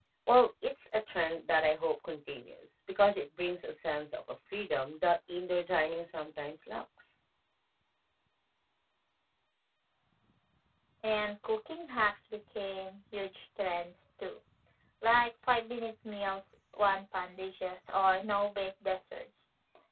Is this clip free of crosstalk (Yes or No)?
Yes